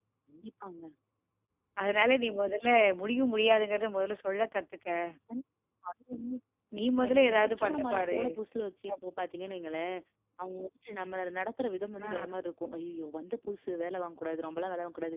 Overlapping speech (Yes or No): Yes